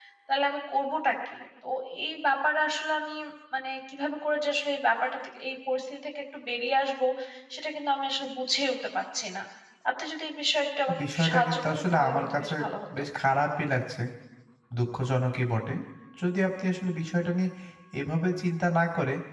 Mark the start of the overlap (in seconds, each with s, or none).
10.9 s